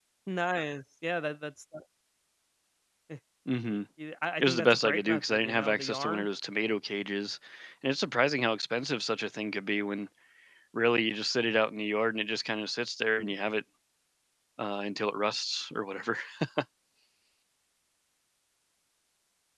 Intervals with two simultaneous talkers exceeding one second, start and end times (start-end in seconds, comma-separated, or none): 4.4-6.3